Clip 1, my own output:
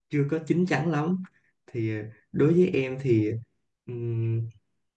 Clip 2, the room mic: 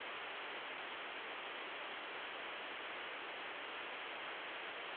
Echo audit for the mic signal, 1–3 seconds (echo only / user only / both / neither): neither